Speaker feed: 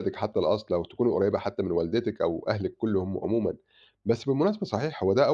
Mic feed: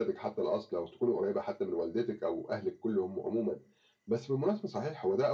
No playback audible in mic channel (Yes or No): No